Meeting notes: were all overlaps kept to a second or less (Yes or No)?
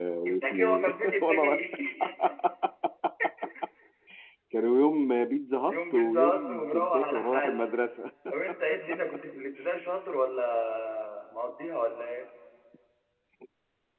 No